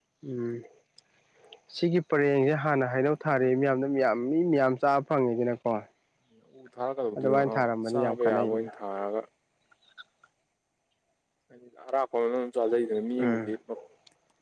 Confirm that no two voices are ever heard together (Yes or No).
No